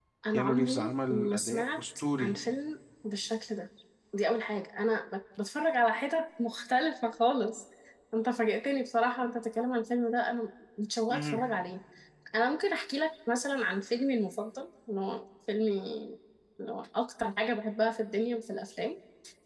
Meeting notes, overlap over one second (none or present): present